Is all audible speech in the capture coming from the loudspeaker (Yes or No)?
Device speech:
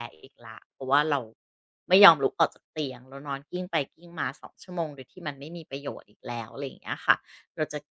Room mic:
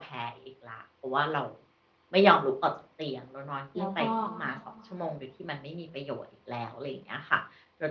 No